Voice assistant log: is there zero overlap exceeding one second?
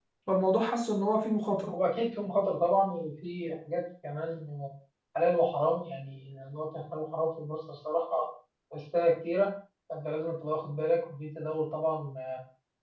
Yes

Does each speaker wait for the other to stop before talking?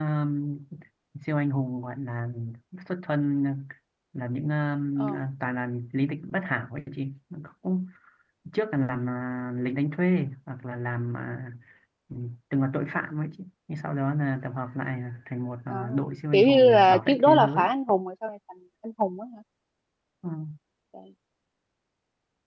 No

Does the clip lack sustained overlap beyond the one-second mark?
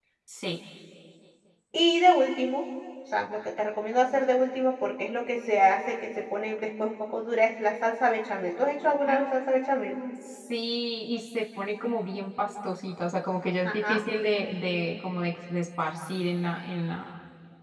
Yes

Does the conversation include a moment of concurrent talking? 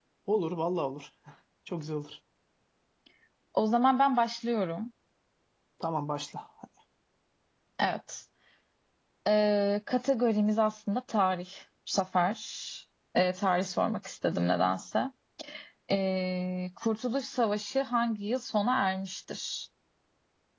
No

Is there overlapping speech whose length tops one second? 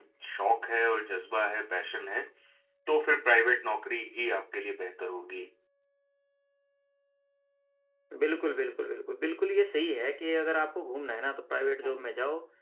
No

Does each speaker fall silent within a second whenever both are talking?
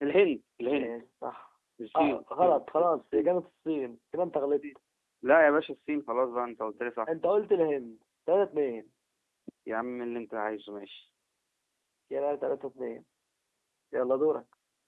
No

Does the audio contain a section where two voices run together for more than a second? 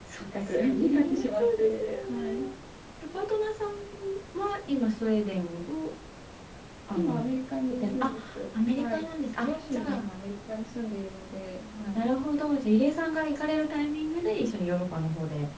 Yes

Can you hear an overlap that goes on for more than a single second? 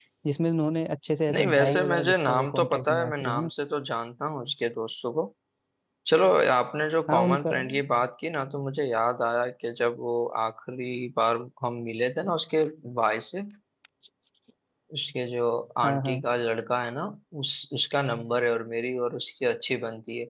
Yes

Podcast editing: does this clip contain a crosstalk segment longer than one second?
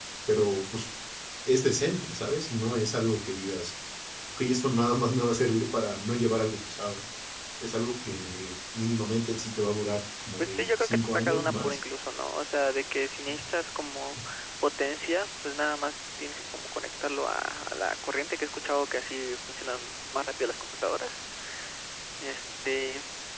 Yes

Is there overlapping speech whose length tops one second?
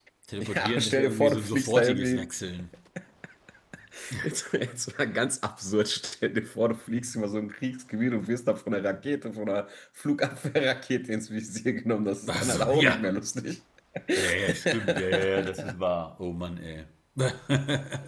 Yes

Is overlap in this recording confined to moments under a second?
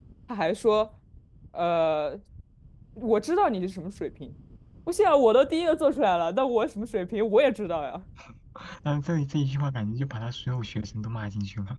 Yes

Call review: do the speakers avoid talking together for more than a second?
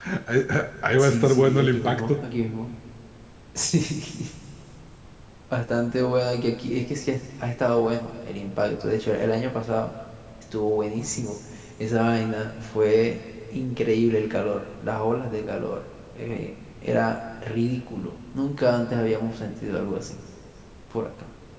No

